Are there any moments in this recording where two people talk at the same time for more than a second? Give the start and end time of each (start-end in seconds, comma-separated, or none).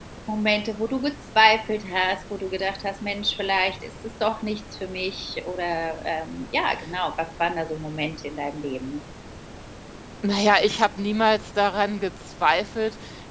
none